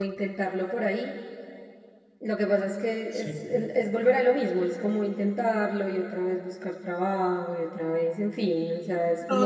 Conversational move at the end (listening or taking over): taking over